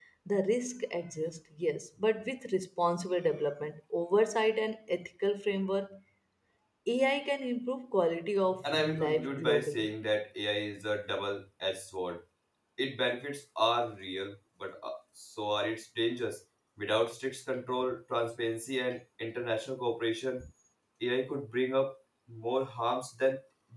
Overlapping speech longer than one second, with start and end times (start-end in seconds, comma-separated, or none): 8.7-9.9